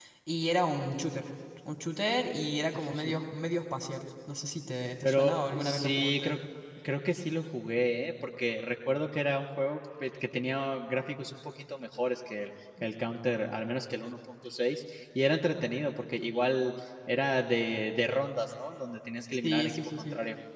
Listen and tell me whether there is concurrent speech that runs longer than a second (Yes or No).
Yes